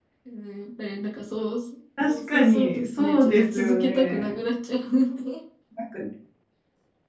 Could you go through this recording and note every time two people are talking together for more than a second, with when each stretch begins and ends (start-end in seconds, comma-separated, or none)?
2.1-4.3